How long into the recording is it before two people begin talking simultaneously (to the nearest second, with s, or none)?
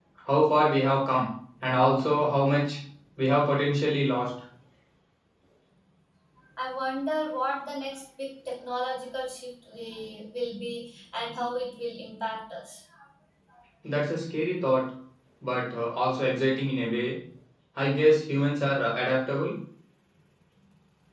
none